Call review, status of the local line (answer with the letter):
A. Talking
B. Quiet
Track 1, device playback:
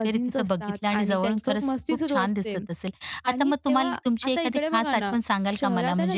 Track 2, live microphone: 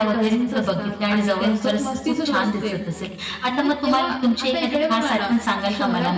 B